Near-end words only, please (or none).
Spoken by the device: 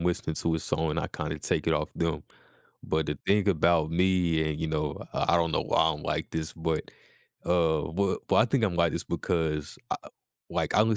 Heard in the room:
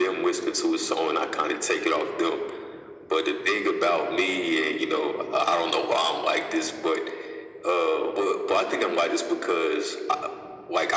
none